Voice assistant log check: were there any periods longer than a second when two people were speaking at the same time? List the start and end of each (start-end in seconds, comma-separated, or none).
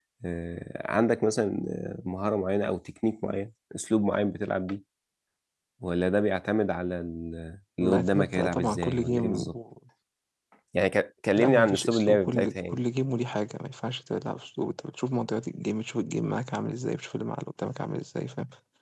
7.8-9.5, 11.4-12.8